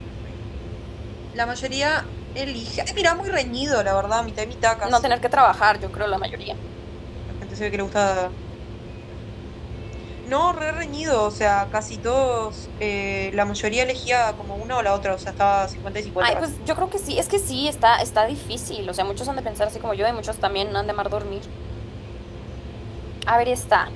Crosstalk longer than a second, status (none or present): none